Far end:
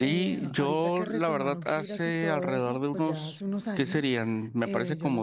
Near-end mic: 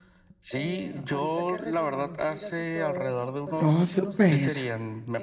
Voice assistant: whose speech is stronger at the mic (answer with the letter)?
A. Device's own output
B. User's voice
B